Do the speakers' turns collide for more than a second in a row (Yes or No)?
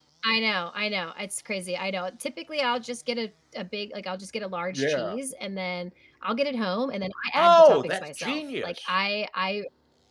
Yes